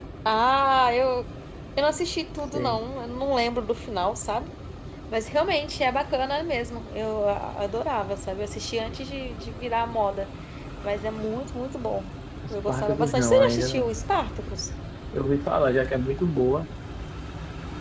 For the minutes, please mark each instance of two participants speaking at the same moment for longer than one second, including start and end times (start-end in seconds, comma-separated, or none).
12.5-13.9